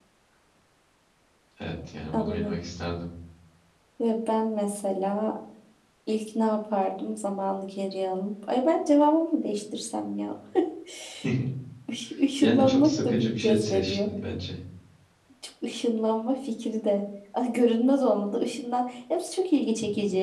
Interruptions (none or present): present